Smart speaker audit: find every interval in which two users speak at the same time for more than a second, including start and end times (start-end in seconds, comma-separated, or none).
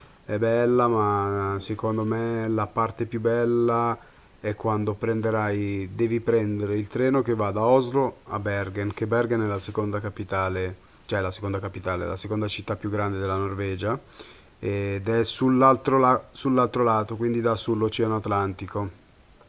none